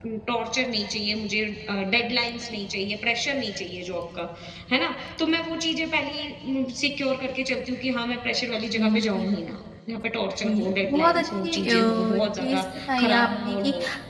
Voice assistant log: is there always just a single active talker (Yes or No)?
No